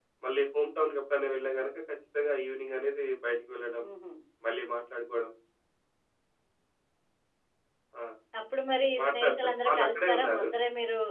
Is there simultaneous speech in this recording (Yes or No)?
Yes